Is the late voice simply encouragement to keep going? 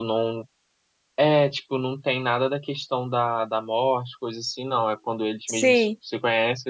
Yes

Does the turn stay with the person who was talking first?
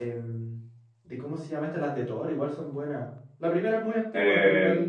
No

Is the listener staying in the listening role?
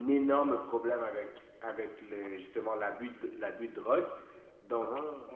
Yes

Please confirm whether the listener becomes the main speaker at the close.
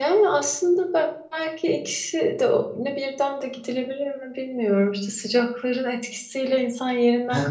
Yes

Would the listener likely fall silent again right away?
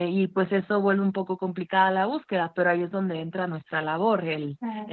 Yes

